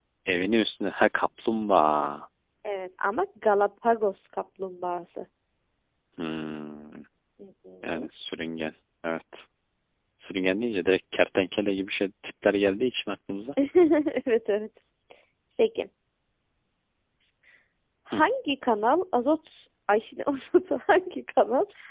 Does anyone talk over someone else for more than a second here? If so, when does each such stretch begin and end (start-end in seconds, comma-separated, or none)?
none